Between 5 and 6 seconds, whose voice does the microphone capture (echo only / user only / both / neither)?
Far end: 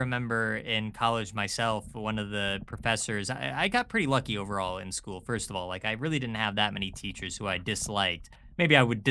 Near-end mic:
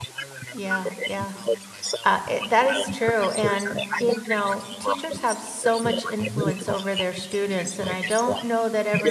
both